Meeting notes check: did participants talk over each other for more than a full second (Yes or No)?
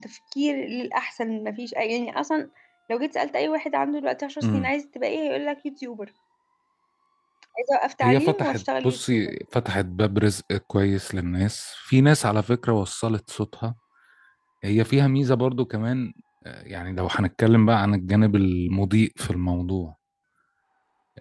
Yes